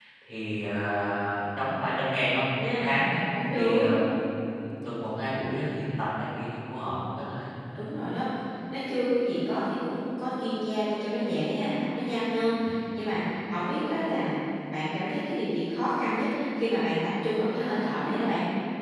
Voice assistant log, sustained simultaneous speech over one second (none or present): none